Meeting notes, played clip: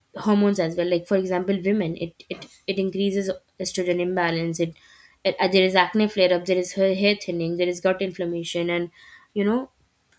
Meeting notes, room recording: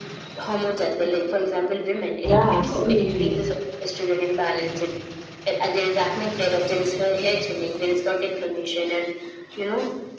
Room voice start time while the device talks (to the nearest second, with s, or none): 2 s